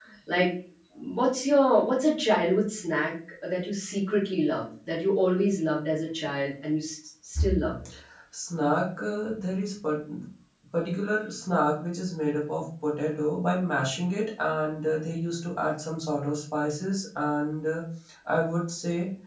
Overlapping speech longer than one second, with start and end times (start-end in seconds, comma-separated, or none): none